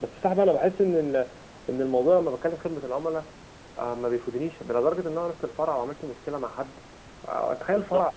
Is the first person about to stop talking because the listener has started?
Yes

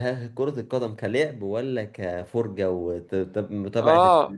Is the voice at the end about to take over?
Yes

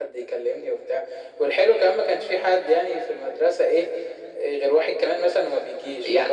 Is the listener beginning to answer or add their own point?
Yes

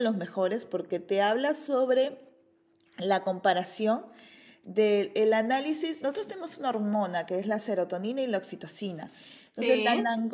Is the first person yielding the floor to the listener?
No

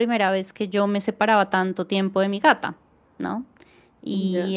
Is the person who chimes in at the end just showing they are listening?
Yes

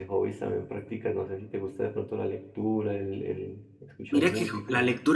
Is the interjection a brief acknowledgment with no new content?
No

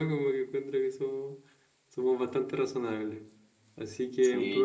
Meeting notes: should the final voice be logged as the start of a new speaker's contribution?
Yes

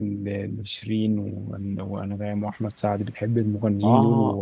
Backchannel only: No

